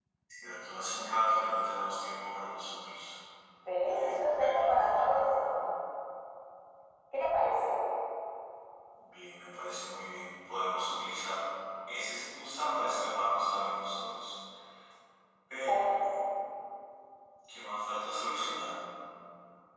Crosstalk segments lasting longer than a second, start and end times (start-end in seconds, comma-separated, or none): 3.9-5.2